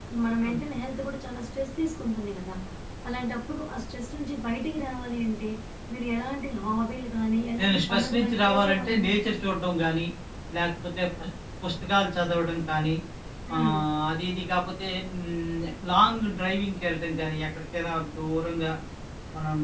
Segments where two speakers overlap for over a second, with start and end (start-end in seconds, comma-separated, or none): 7.6-9.1